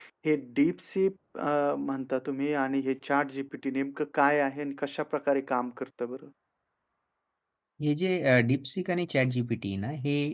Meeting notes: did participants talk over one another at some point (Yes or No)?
No